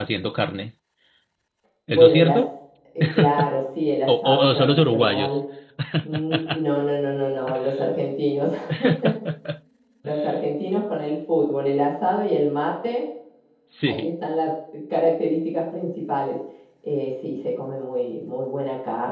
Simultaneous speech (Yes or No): Yes